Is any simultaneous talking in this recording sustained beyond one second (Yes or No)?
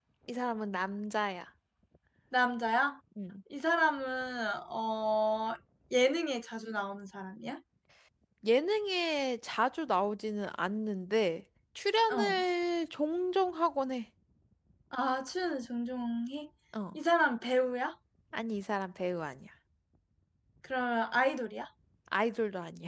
No